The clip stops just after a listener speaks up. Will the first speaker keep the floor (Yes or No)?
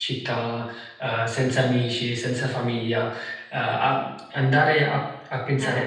Yes